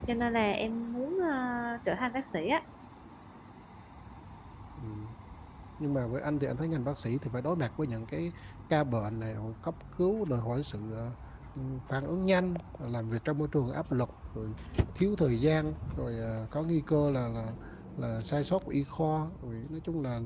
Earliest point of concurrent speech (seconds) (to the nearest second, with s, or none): none